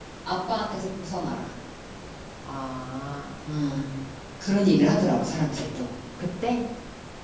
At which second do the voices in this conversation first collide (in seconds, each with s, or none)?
none